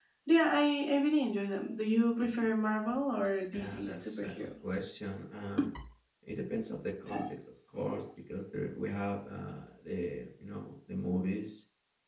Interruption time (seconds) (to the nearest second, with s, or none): 4 s